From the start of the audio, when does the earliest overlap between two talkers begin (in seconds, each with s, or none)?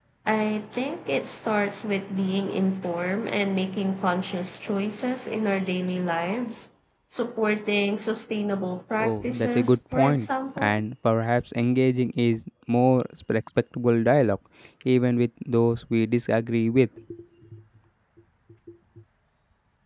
9.0 s